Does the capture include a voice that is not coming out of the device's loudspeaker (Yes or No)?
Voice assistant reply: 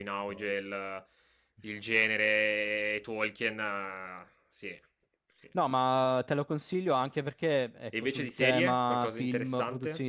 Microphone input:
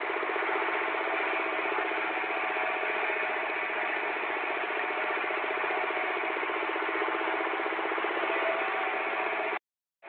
No